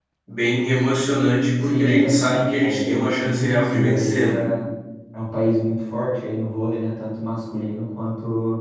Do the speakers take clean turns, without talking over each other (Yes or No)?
No